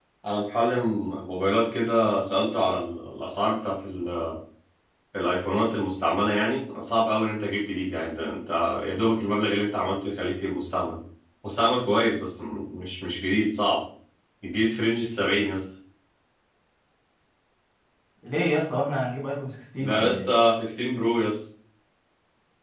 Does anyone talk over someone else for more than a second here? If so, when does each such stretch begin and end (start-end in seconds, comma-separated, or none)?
none